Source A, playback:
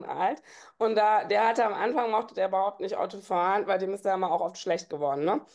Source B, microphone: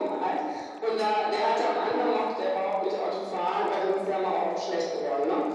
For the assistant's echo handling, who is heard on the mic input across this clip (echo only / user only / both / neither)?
echo only